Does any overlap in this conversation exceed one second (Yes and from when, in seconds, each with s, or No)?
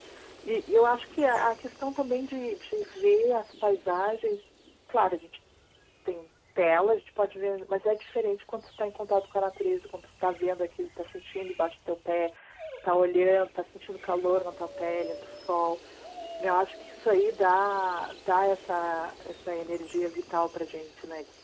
No